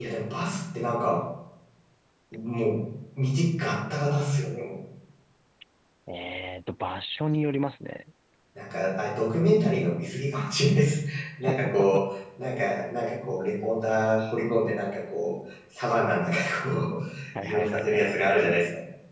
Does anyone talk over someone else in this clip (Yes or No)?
Yes